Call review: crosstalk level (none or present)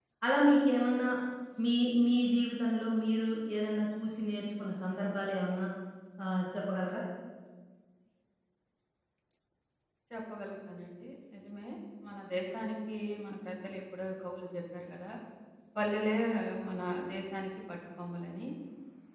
none